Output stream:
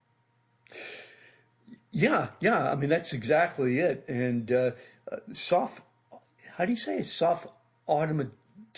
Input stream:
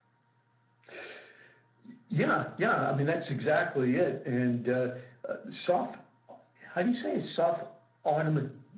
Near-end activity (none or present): none